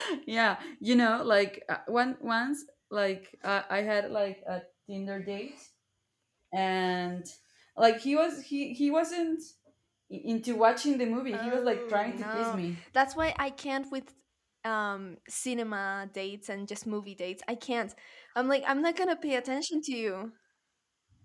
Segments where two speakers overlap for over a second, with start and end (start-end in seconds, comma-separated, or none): 11.3-12.6